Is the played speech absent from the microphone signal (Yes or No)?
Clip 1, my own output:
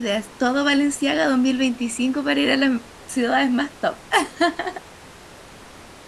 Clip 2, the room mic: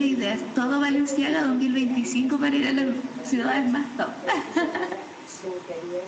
No